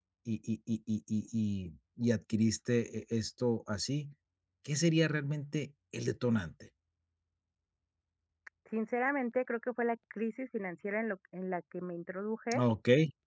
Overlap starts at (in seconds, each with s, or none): none